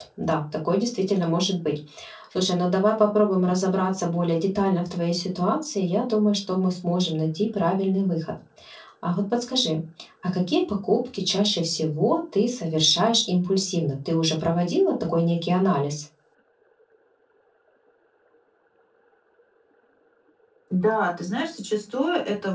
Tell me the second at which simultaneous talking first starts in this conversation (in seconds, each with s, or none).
none